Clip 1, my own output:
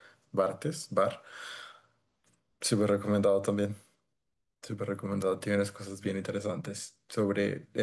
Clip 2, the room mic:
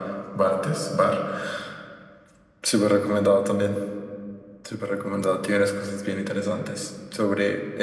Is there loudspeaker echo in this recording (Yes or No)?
Yes